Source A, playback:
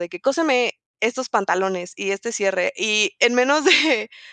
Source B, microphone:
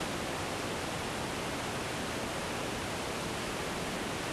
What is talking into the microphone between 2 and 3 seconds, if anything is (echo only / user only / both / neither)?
neither